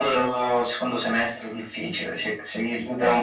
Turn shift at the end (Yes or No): No